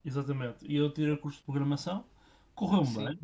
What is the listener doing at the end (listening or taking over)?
listening